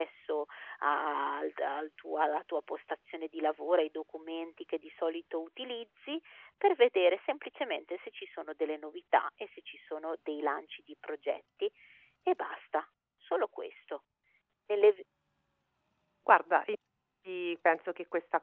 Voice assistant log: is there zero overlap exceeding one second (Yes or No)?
Yes